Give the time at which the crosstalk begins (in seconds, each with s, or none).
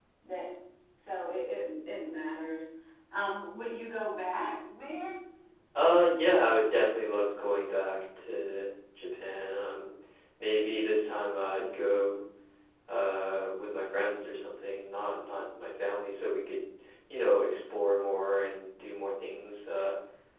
none